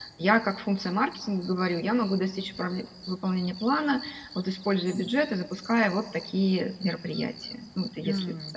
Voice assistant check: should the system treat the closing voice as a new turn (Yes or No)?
Yes